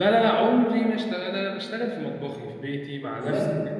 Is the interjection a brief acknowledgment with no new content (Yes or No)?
Yes